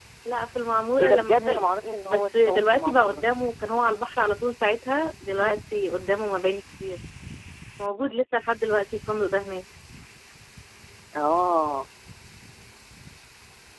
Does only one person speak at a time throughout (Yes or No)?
No